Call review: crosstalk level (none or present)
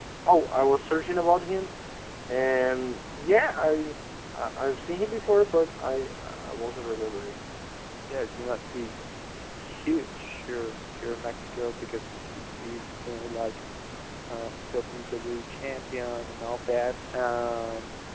none